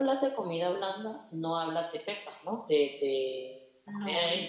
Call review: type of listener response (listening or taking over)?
taking over